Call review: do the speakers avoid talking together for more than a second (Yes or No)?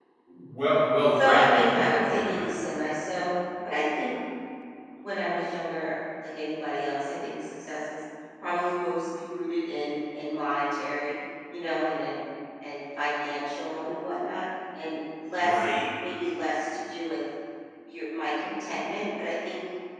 No